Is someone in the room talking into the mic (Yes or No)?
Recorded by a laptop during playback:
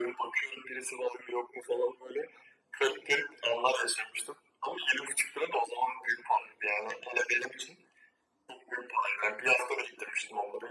No